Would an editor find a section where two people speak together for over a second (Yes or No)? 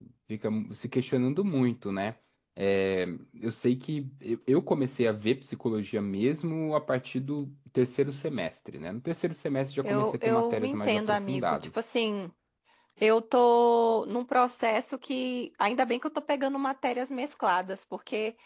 Yes